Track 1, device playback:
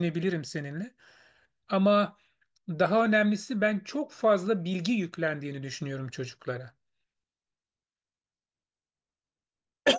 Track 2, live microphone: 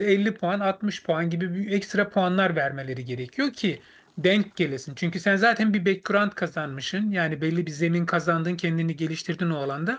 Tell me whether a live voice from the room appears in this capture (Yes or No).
Yes